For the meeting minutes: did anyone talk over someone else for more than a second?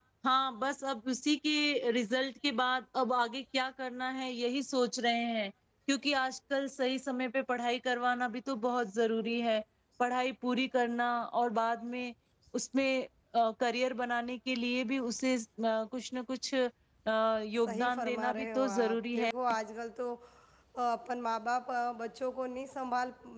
Yes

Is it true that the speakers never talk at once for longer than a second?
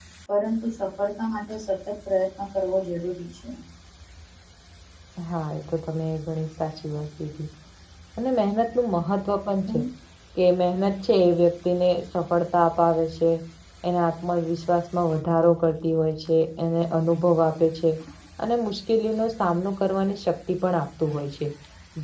Yes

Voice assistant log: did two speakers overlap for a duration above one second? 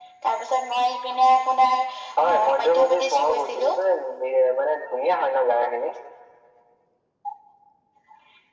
Yes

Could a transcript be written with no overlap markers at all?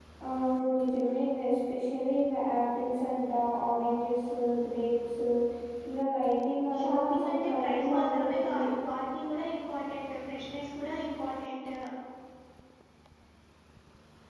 No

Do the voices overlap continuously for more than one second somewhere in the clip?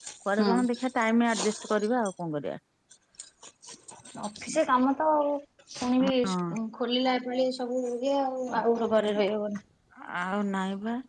No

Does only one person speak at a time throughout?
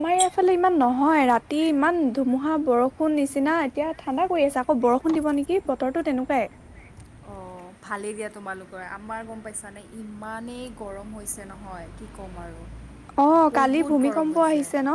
No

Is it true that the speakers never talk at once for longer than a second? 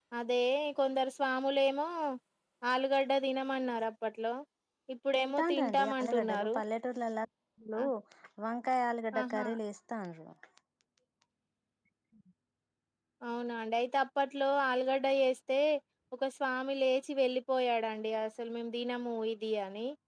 No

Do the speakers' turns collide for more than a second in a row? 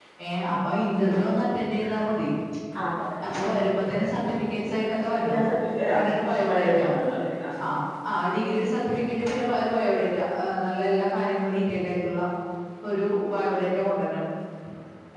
No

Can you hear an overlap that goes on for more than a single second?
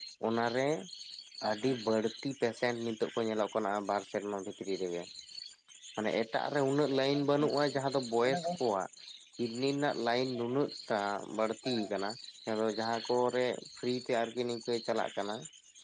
No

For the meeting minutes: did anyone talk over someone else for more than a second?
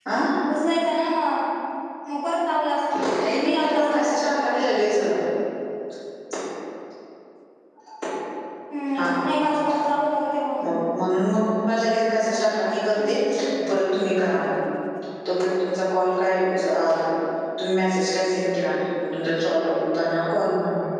Yes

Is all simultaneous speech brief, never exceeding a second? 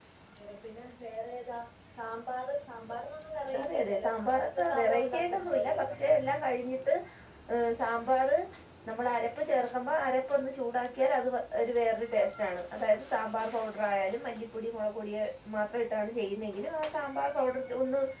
No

